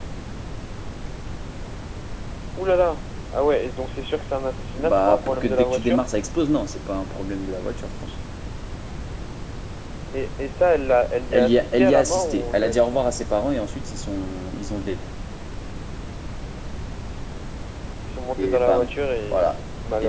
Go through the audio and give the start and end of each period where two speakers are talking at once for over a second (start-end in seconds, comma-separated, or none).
4.8-6.0, 11.3-12.9